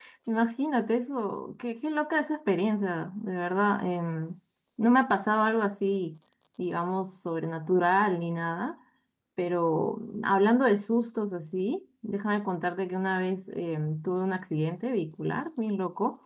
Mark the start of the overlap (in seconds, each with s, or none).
none